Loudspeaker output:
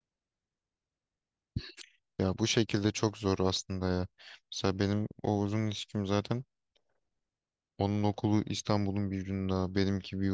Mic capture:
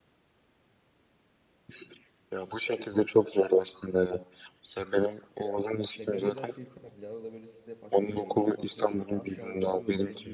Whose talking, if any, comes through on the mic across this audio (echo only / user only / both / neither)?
both